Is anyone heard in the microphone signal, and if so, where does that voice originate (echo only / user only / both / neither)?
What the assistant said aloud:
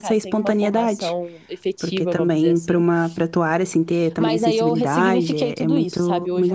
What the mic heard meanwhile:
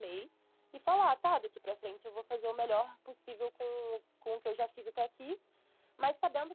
user only